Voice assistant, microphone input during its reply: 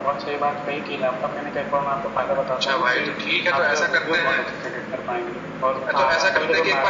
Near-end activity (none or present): none